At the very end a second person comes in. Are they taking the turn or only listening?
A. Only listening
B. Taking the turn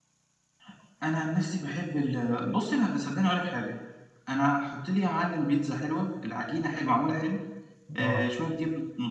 A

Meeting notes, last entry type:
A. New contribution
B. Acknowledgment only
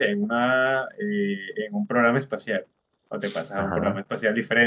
B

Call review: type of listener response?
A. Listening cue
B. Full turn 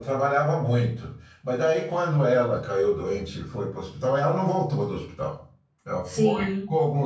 A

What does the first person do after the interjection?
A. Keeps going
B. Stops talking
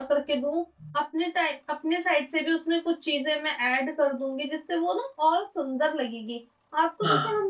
A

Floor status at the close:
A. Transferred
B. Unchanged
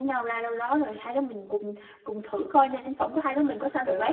A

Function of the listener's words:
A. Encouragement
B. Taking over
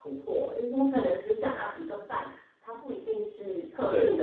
A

